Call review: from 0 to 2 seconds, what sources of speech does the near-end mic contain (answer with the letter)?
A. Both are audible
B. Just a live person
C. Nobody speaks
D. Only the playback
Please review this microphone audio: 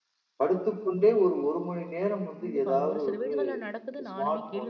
D